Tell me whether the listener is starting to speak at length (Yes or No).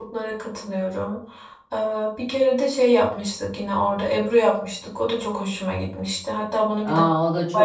Yes